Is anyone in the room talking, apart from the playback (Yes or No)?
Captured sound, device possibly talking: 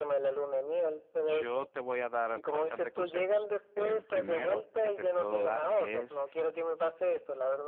Yes